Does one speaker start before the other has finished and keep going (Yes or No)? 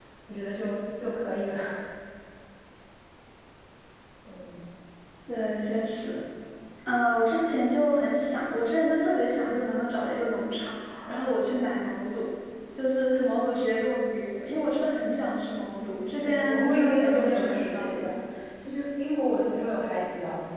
Yes